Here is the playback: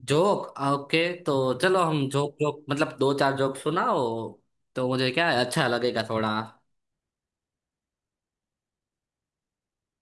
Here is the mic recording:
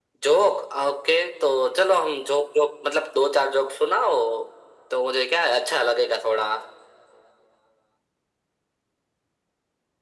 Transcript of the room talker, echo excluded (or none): none